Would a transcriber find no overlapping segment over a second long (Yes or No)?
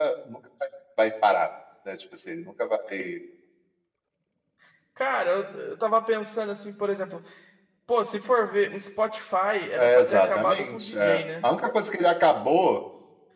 No